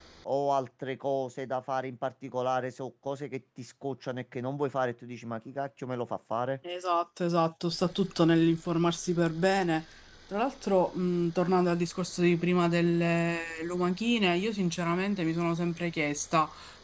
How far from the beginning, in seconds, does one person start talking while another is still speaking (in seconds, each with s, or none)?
none